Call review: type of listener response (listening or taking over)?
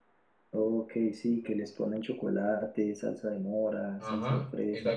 taking over